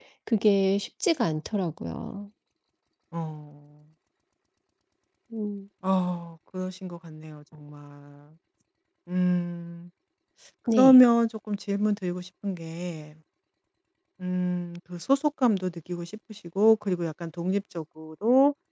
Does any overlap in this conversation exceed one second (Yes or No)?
No